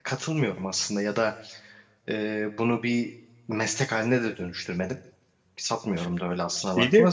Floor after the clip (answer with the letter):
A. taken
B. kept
B